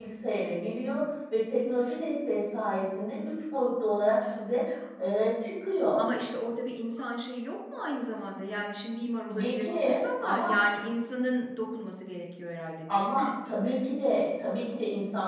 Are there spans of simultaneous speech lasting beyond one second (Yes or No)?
Yes